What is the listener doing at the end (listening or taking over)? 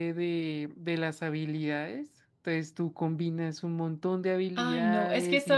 taking over